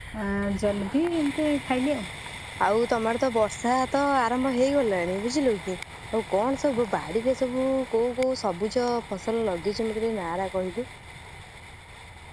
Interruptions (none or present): none